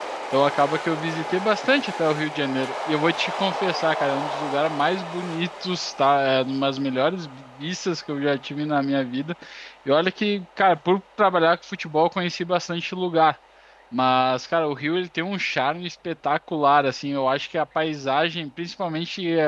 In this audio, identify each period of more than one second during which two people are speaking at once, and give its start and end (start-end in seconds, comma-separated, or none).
none